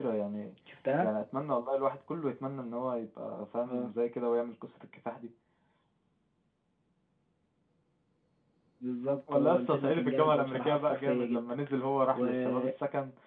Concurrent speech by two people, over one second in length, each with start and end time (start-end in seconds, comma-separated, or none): 9.3-11.5